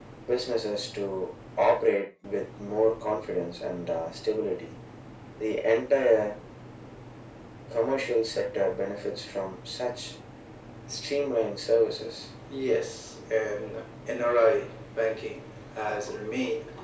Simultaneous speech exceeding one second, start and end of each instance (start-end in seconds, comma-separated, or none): none